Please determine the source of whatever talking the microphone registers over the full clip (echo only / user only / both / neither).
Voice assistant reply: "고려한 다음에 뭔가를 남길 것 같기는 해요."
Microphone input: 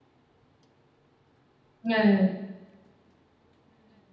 user only